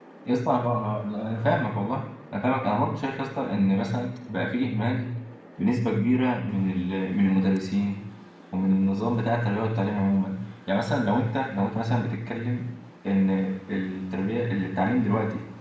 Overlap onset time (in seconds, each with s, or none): none